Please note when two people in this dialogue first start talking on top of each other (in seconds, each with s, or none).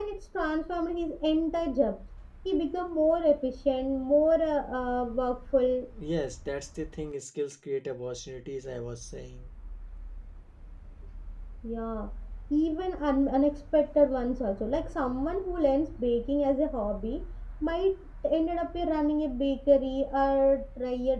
none